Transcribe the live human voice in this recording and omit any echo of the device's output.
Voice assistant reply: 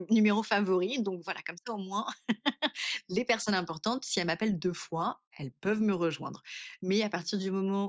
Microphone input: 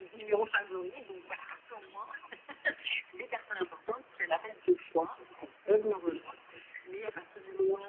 none

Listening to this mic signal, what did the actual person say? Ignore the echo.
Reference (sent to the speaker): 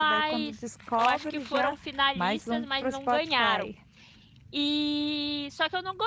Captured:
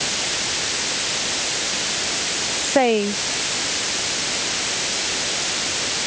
Sei.

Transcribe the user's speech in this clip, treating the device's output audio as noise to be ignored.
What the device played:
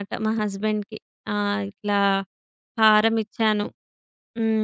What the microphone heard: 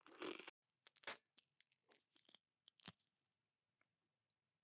none

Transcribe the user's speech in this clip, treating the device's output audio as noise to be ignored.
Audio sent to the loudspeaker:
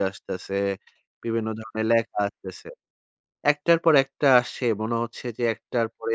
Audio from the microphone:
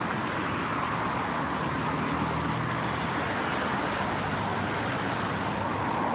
none

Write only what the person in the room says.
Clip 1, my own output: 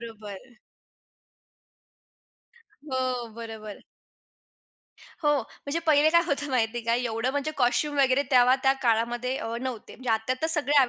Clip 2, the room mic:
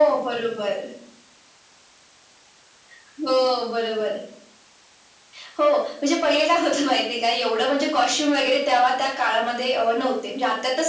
none

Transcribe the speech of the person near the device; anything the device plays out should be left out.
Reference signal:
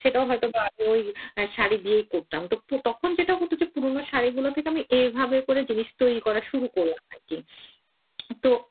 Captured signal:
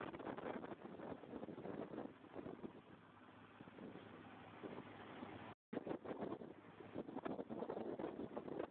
none

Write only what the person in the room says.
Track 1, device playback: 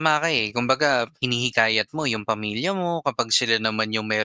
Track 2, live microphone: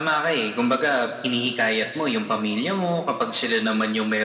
none

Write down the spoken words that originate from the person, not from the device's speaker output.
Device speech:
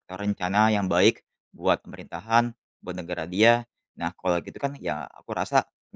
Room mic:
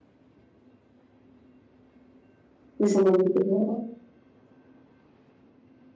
Sisi positifnya heeh.

